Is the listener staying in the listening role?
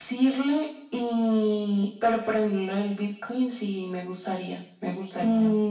No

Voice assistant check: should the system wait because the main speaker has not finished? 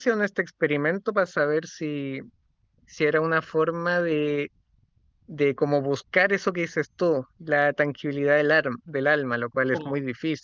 No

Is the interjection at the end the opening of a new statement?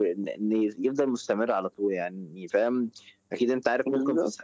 No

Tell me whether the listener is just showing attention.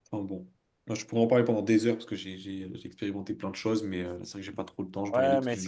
No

